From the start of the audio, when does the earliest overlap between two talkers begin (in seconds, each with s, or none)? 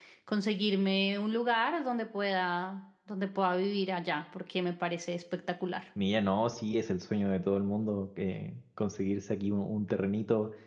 none